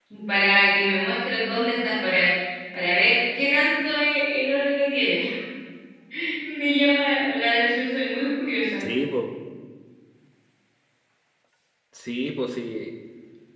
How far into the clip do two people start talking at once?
none

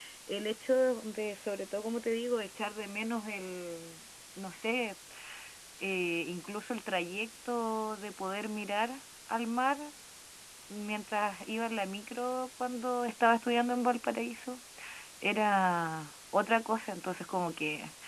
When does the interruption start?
none

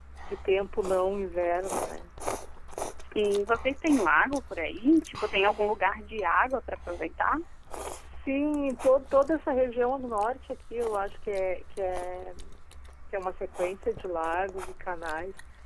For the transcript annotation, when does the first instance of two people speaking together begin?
none

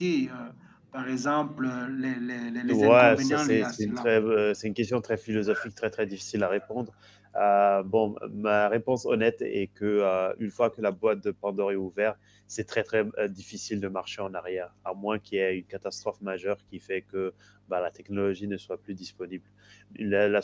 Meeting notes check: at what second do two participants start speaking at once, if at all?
2.6 s

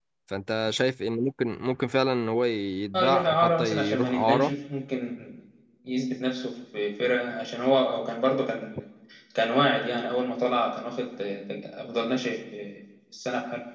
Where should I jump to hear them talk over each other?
2.9 s

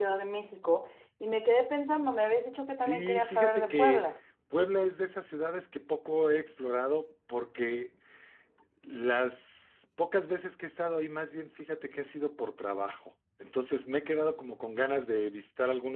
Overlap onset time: 2.8 s

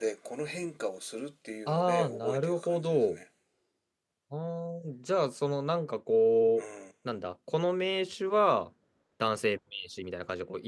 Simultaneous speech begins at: 1.7 s

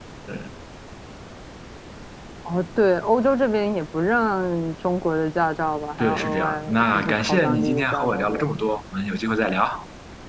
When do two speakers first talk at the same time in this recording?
6.0 s

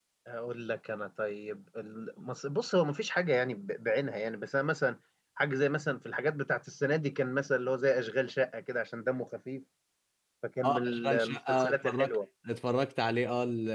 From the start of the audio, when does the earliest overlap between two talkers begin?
10.6 s

